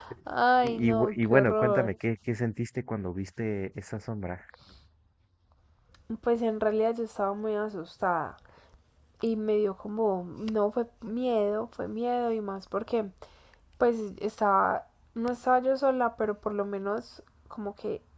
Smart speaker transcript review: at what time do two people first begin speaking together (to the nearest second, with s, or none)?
1 s